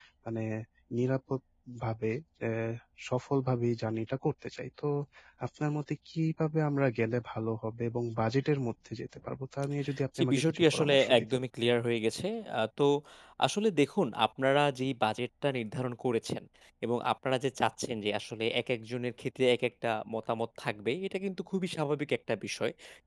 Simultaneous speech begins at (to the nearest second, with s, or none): 10 s